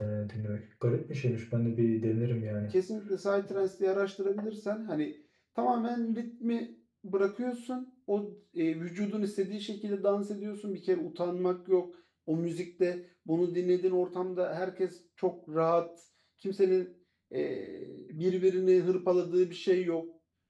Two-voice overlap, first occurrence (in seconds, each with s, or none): none